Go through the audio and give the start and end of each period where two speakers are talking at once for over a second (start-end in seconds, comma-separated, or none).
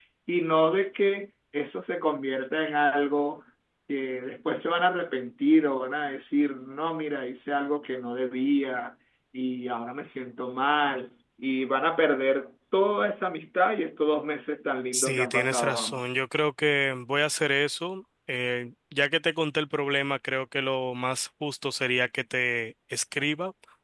14.9-16.1